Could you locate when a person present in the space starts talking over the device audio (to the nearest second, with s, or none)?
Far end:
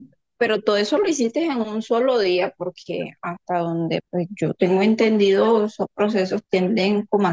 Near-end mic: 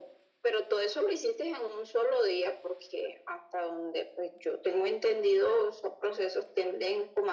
none